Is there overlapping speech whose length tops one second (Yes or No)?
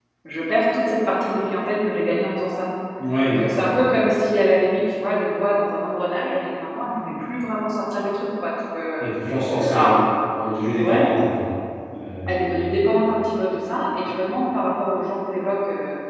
No